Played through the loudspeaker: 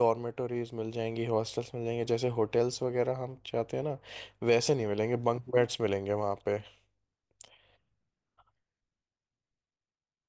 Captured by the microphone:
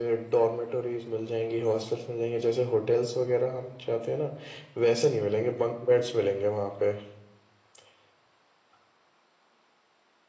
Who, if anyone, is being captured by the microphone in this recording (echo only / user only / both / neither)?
echo only